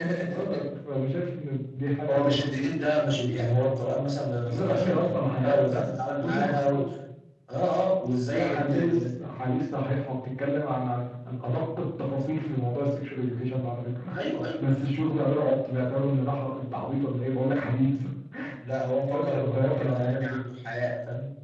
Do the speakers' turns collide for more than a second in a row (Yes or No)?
Yes